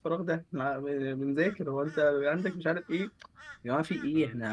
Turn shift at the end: No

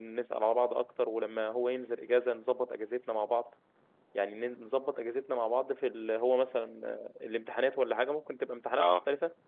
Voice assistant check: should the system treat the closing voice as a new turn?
No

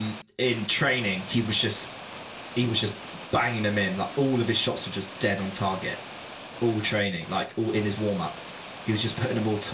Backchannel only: Yes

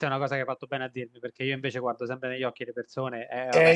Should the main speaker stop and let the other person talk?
Yes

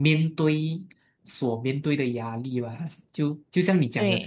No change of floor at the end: Yes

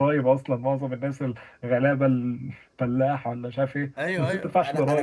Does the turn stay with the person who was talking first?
No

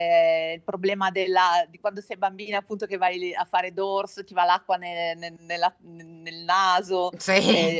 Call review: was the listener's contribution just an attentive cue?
Yes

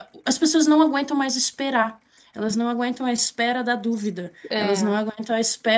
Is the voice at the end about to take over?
No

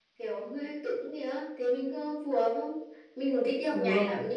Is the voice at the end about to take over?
No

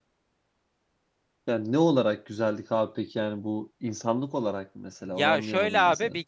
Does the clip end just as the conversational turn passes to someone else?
Yes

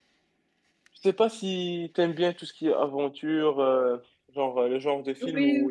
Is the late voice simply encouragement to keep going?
Yes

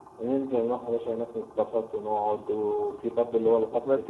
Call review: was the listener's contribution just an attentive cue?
No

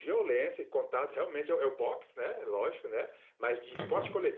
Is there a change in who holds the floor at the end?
No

